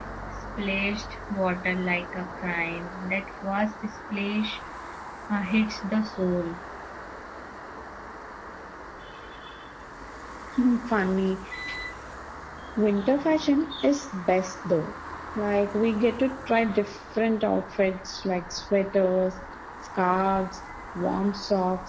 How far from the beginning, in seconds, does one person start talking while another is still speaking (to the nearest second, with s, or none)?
none